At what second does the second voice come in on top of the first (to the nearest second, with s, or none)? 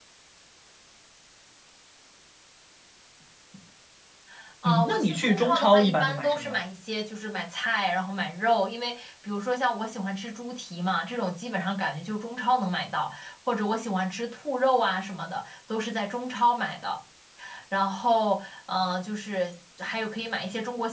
5 s